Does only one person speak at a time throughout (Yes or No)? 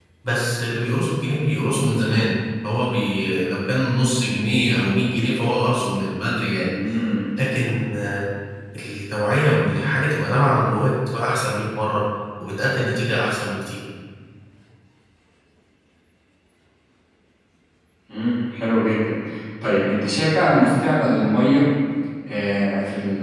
Yes